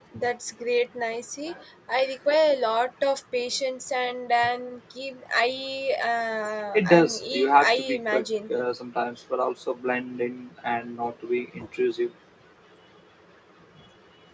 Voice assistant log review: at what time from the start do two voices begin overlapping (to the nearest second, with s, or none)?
7 s